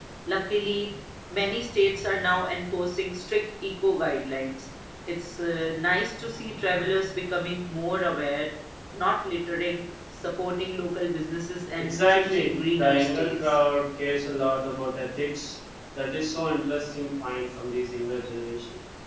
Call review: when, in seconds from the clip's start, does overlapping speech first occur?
12 s

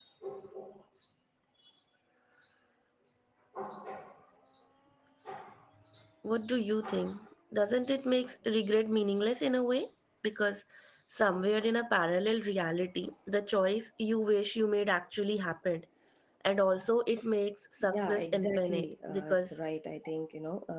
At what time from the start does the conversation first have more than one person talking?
18 s

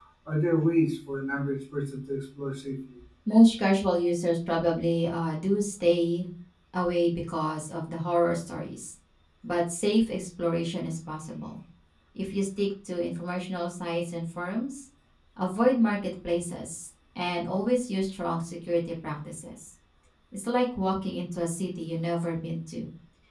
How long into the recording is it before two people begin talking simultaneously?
none

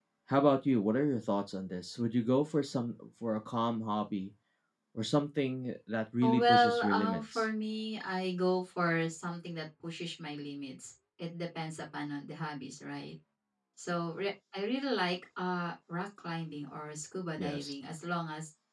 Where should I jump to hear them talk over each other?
6 s

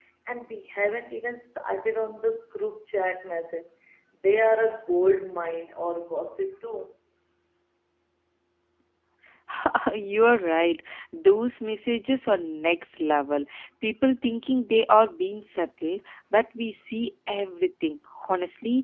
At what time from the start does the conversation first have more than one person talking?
none

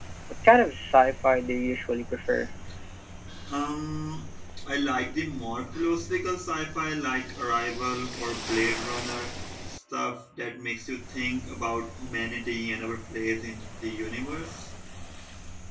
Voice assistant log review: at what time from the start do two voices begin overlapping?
none

